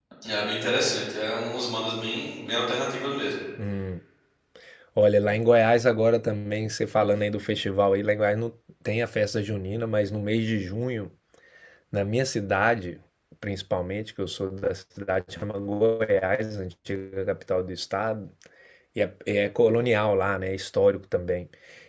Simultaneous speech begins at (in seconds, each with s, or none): none